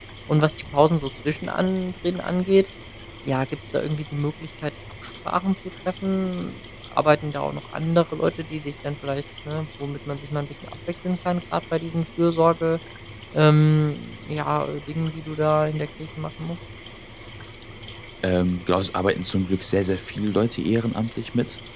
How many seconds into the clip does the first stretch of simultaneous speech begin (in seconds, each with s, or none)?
none